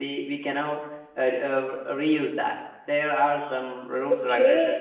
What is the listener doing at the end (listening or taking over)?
taking over